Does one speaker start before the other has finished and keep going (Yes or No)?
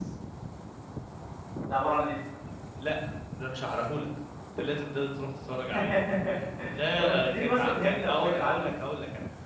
Yes